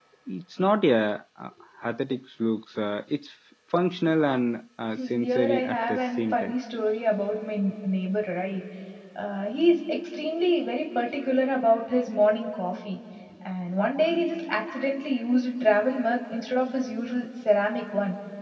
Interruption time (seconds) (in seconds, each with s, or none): 5.0 s